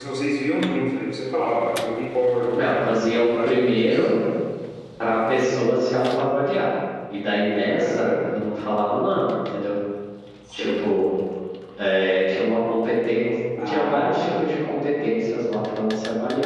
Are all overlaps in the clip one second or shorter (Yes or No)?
No